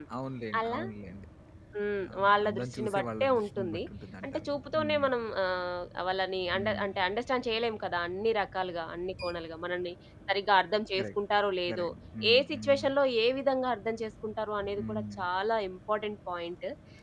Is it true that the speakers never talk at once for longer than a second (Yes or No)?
No